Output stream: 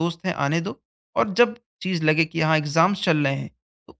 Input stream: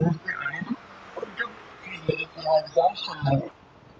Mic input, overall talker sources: echo only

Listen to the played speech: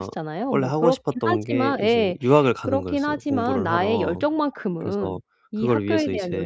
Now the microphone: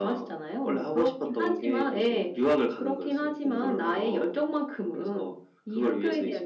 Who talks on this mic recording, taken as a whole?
echo only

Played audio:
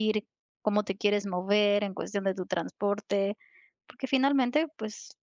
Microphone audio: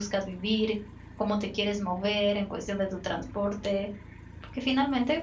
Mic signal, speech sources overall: echo only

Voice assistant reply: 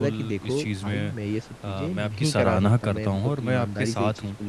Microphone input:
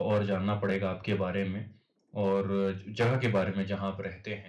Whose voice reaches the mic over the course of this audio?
user only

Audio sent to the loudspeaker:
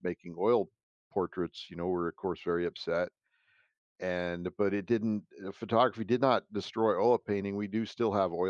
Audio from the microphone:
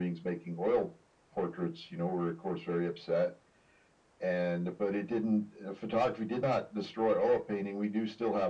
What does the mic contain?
echo only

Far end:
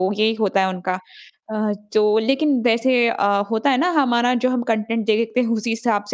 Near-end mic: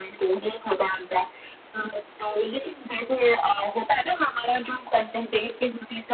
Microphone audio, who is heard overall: echo only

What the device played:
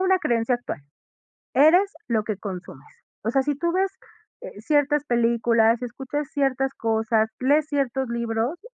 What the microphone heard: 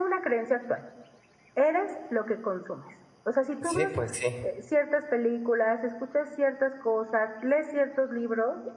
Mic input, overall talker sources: both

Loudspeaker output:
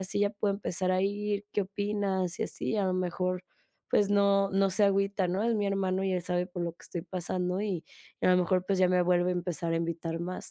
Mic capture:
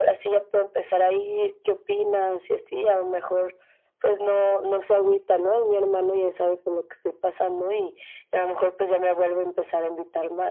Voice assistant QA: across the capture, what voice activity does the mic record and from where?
echo only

